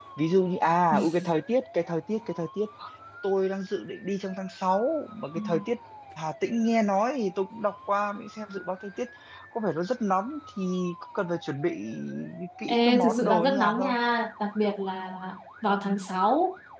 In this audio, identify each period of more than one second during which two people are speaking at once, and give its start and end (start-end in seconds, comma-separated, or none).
12.7-13.9